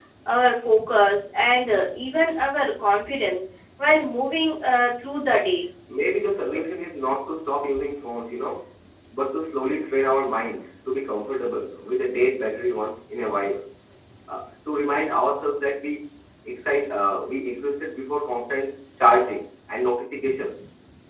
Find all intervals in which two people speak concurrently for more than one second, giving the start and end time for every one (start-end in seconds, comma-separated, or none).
none